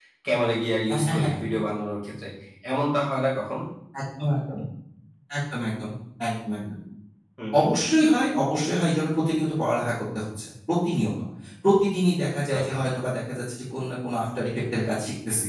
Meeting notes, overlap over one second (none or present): none